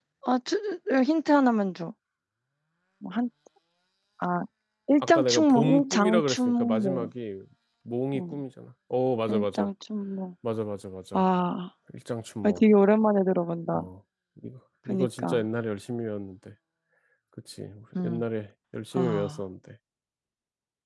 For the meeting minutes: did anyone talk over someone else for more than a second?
Yes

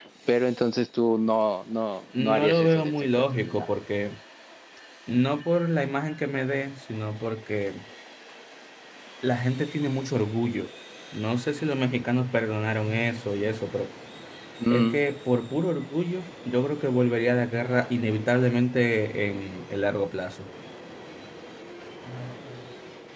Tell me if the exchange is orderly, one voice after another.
No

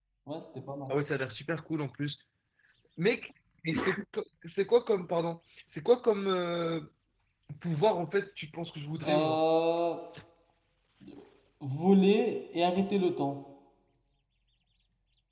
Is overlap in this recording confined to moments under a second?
Yes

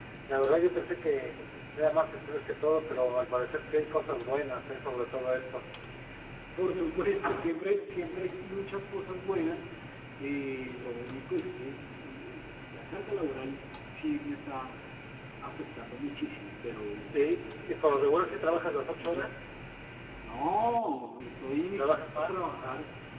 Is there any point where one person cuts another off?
Yes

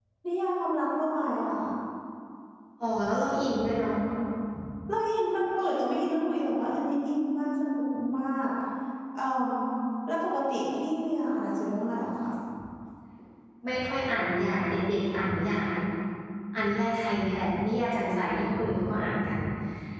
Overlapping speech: No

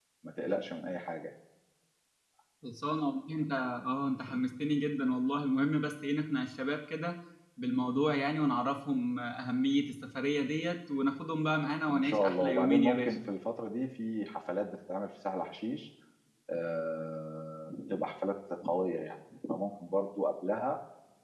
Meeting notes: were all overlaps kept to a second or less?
No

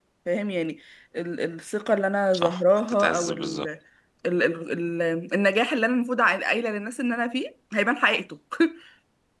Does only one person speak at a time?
No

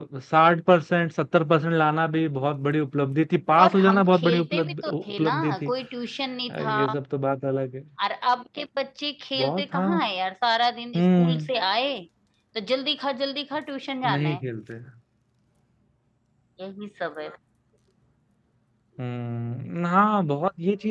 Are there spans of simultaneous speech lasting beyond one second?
Yes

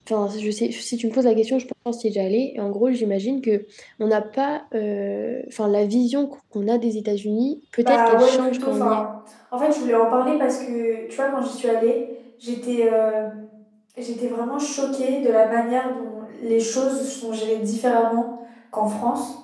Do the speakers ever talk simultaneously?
Yes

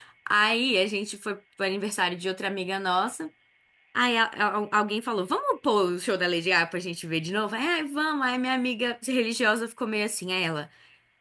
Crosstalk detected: No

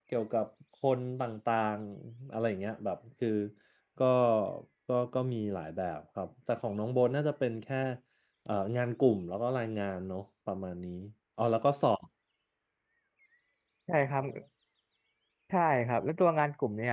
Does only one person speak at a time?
Yes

